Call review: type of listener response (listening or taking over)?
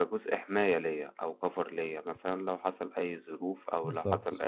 listening